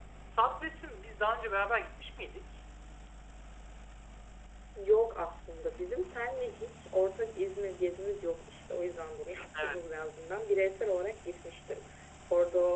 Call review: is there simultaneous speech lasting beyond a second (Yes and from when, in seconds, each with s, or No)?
No